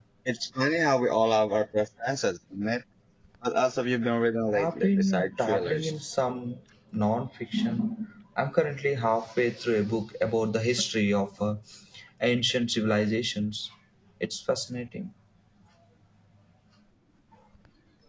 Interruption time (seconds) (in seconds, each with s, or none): 4.5 s